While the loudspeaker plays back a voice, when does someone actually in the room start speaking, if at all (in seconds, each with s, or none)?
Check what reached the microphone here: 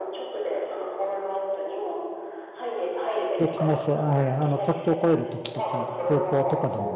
3.4 s